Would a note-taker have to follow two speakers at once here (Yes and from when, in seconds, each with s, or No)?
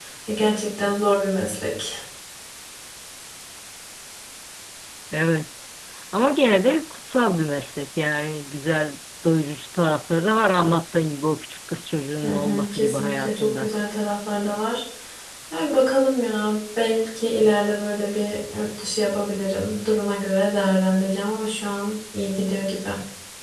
Yes, from 12.2 s